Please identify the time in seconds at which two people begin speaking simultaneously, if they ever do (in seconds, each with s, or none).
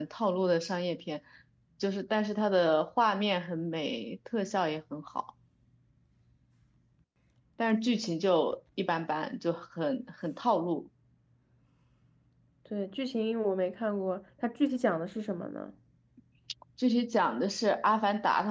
none